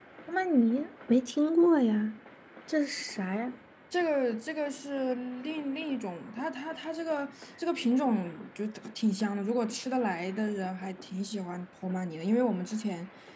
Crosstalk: none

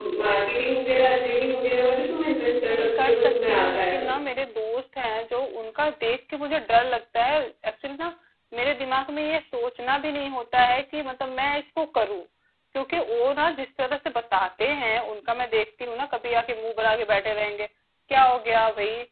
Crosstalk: present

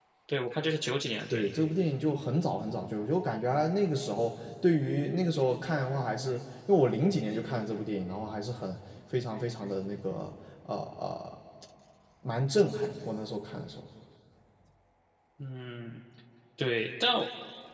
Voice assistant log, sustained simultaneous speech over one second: none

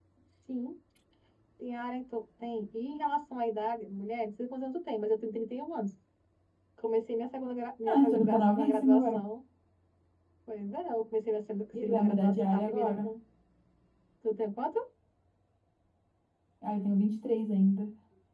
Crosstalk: present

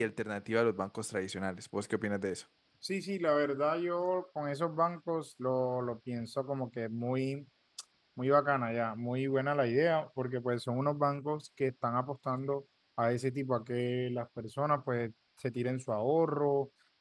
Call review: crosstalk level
none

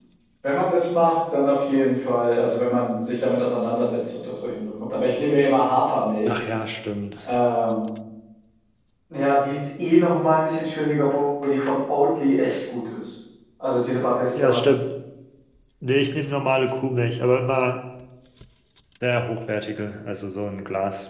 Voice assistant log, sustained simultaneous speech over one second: none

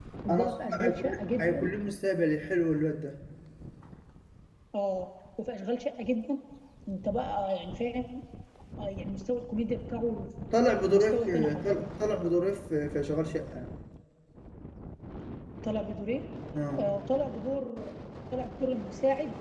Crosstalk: present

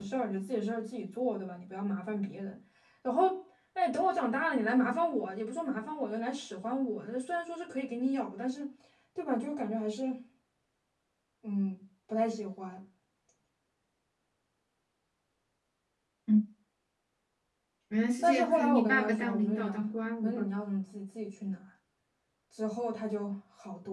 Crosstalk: present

